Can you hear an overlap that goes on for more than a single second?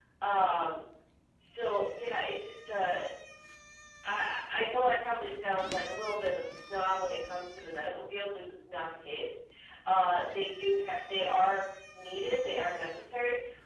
No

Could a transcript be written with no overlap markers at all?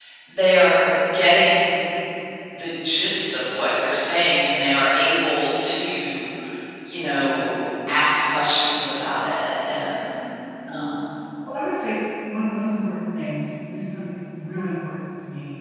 Yes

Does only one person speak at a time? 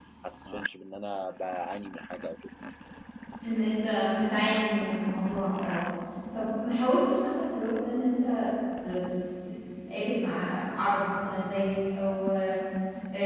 Yes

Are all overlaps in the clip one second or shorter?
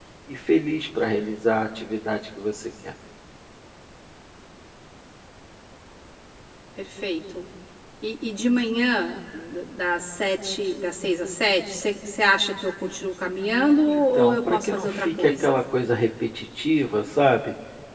No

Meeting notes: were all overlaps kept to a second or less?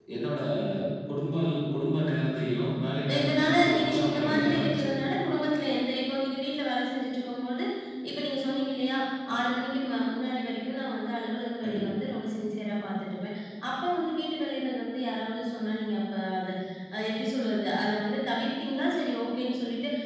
No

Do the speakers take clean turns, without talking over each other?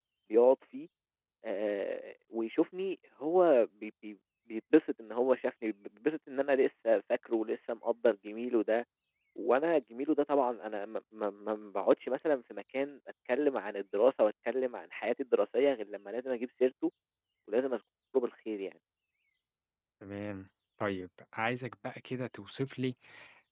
Yes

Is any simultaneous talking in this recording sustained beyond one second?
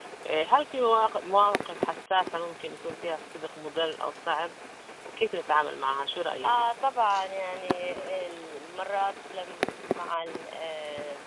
No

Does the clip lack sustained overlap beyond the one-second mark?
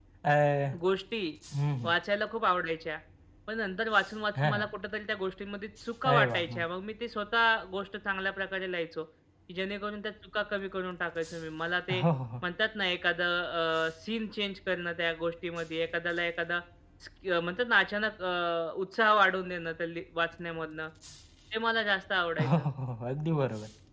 Yes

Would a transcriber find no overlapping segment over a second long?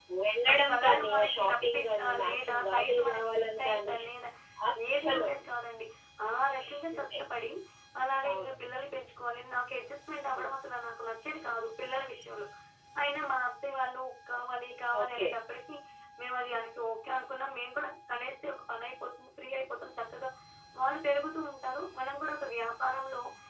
No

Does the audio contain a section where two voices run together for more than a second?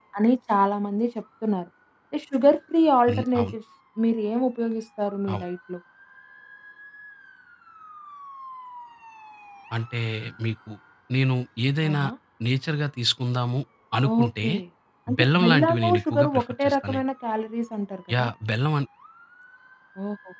Yes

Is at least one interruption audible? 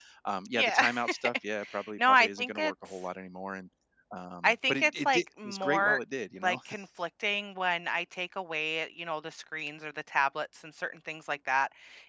Yes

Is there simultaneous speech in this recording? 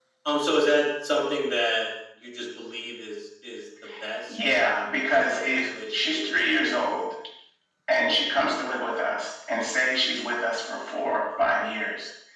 Yes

